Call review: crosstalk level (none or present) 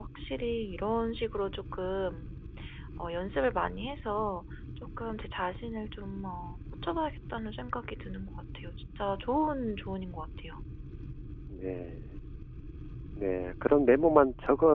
none